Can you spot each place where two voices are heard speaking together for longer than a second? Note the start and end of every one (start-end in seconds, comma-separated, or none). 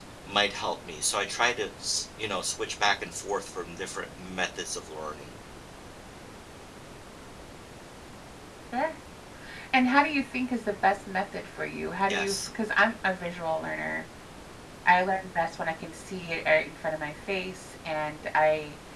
none